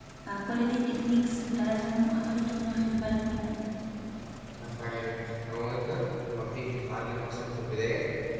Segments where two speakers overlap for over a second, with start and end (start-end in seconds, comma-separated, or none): none